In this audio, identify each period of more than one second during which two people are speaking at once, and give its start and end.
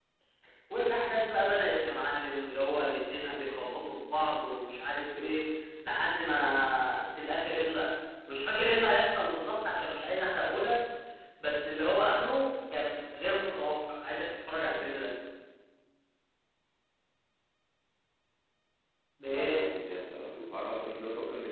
none

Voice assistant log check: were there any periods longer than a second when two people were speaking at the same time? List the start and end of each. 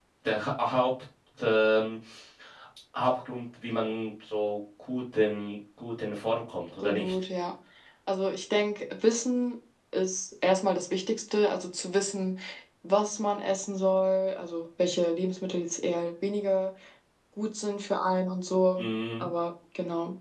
none

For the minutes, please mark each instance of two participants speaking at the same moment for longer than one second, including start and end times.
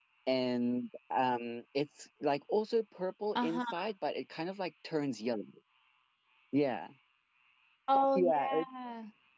none

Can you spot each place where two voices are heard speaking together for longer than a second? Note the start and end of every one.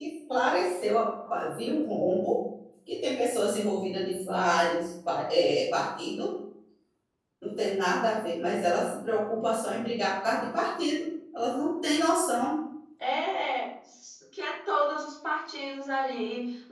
none

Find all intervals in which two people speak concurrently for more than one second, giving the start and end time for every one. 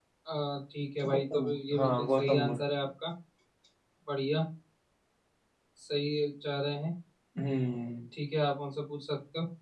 1.1-2.6

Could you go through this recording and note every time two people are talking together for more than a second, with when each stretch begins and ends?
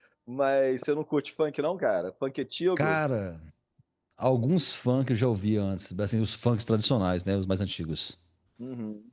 none

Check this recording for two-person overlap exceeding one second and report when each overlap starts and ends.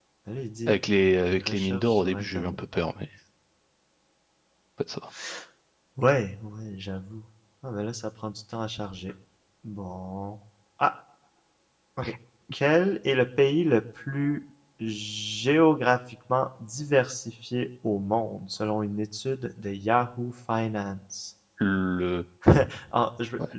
1.3-2.6

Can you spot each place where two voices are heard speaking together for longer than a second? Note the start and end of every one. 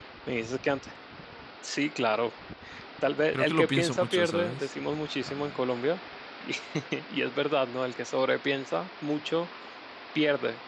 3.3-4.7

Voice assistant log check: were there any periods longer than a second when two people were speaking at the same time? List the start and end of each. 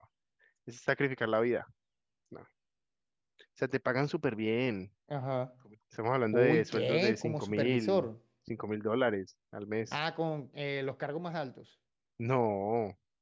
6.3-8.1

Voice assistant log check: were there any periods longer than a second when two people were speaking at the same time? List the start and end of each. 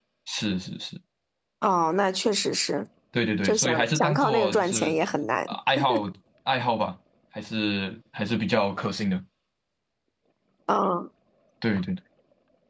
3.4-5.0

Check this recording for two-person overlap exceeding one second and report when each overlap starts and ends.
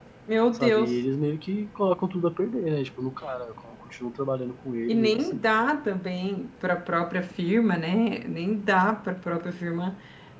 none

